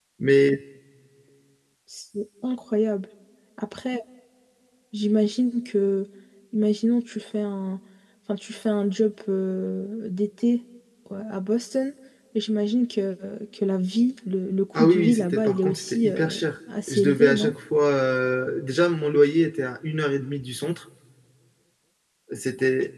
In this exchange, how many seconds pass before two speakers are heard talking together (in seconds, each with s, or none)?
14.7 s